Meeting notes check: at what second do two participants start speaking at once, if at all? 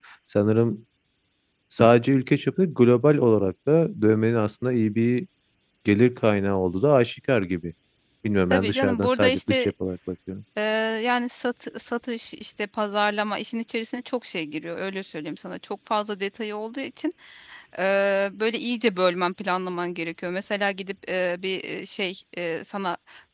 8.5 s

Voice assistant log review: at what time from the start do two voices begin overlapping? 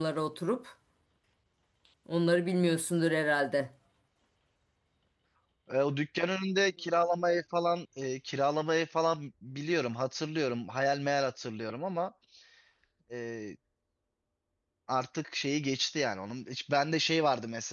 none

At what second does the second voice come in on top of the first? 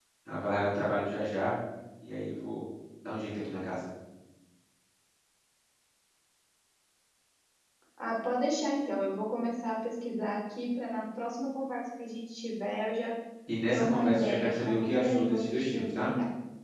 13.7 s

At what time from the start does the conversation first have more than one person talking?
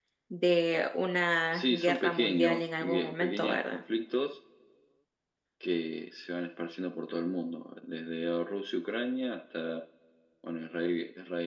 1.5 s

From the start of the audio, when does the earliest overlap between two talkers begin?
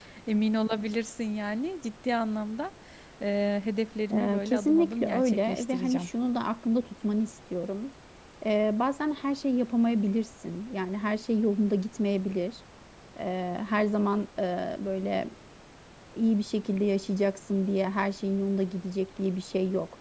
4.1 s

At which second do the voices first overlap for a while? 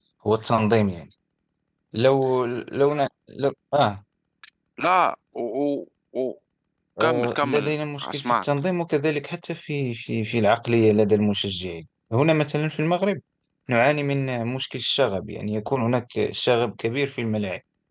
7.0 s

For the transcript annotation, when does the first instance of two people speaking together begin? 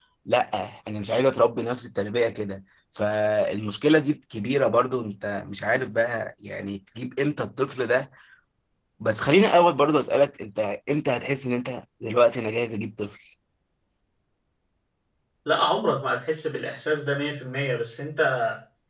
none

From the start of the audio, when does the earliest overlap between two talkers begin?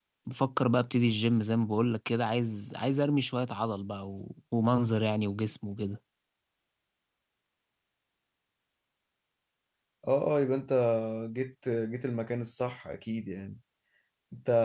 none

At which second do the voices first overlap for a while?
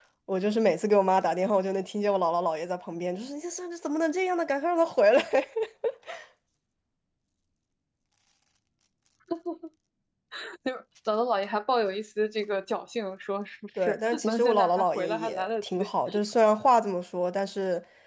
13.8 s

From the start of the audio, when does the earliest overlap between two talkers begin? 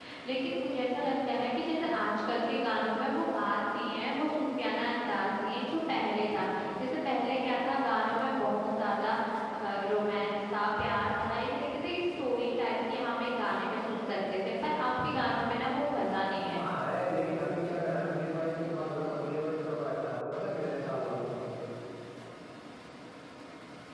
none

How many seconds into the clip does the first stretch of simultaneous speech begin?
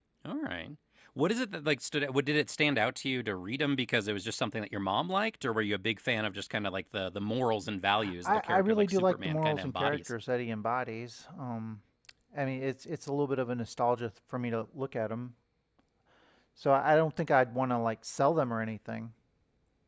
8.2 s

